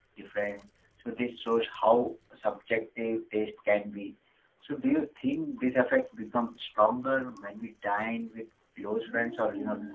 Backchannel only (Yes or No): No